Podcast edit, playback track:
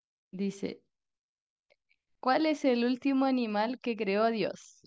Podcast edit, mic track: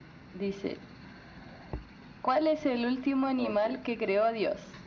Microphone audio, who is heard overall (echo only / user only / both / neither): both